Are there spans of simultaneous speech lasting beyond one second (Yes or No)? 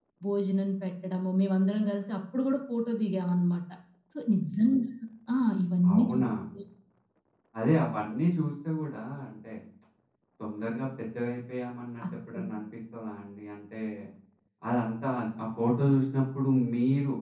No